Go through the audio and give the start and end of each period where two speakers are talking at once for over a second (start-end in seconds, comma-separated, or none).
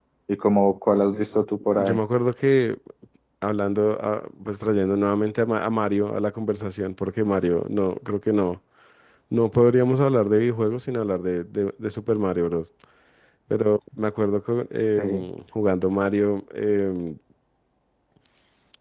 none